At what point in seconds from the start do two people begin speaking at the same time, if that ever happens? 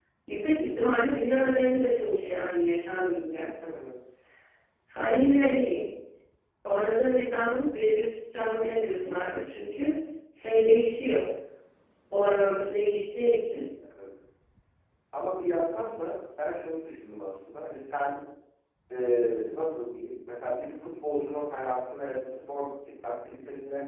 none

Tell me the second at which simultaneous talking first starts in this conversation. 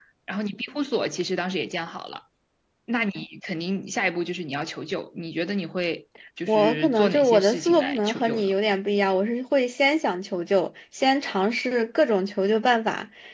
6.5 s

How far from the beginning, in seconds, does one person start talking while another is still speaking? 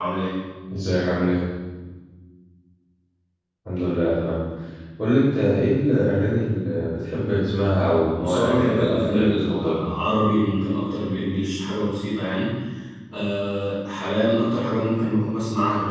8.2 s

